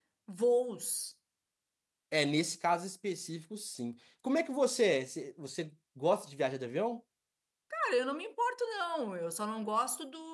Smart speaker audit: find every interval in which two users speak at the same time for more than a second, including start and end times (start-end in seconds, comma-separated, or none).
none